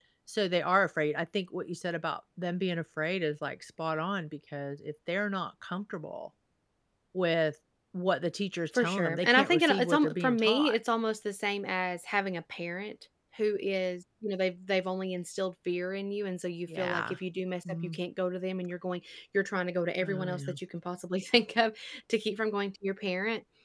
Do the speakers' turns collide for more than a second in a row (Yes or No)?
Yes